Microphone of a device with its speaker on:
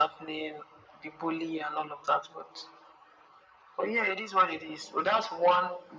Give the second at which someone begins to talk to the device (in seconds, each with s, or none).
none